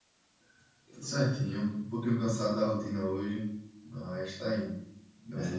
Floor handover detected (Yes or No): Yes